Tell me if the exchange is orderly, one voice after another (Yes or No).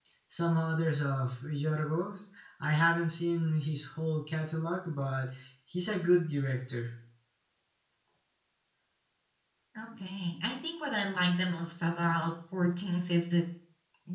Yes